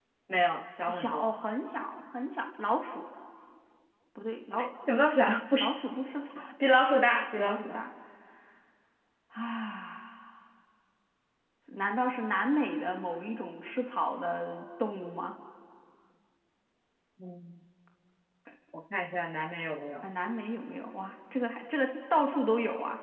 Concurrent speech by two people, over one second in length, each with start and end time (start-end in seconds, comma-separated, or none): none